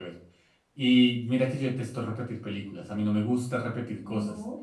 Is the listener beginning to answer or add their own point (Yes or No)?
No